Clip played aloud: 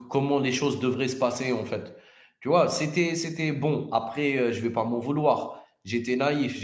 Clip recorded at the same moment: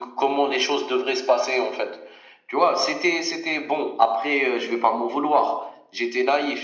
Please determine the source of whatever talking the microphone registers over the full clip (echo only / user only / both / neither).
echo only